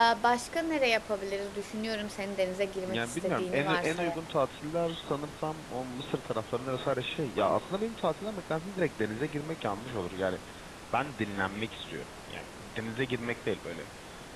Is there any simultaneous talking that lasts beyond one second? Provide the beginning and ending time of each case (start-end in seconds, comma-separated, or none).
2.9-4.2